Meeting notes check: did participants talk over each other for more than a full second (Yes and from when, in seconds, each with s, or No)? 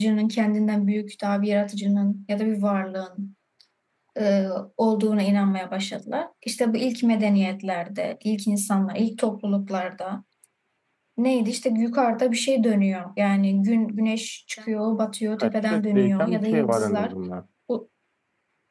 Yes, from 15.4 s